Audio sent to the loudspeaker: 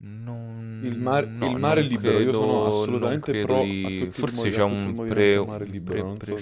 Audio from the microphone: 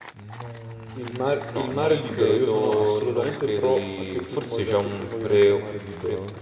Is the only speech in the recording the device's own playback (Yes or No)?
Yes